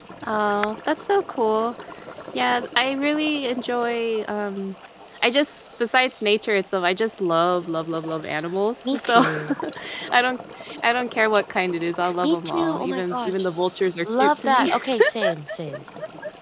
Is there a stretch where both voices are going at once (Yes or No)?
Yes